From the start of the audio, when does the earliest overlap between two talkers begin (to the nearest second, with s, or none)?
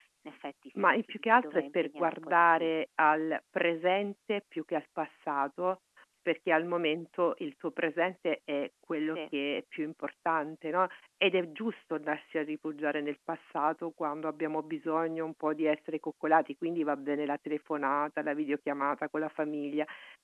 1 s